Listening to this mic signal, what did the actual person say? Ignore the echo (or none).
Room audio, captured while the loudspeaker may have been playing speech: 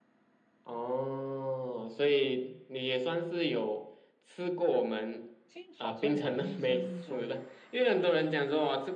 这好像我印象中，